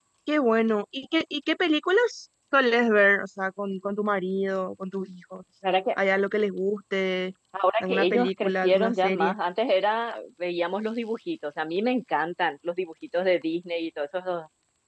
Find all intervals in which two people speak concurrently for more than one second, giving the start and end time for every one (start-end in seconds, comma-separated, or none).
7.8-9.3